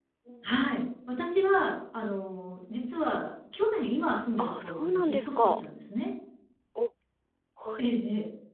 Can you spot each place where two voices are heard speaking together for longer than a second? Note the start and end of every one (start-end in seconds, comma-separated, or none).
4.4-5.6